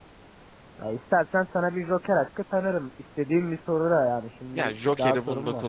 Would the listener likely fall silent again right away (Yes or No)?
No